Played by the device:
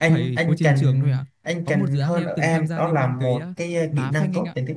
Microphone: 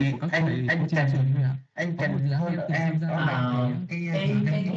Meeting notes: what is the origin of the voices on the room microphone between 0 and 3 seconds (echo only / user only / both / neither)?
echo only